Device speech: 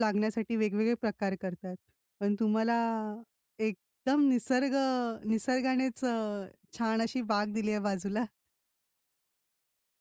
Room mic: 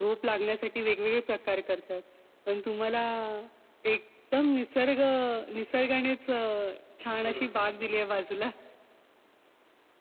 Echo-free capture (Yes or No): No